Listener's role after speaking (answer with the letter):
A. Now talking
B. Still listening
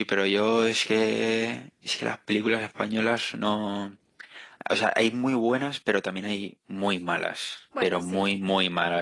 B